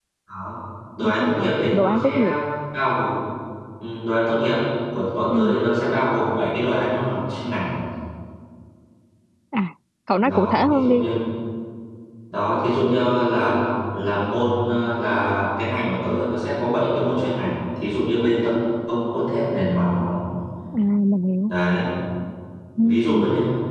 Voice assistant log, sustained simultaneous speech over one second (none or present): present